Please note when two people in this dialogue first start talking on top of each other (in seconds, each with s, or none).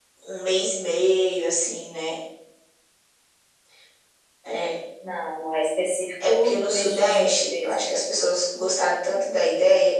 6.2 s